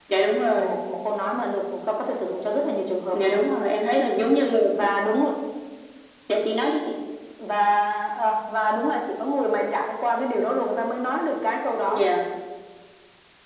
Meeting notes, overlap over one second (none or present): none